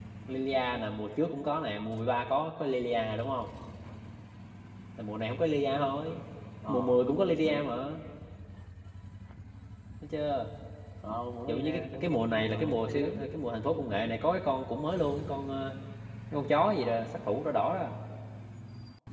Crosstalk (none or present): present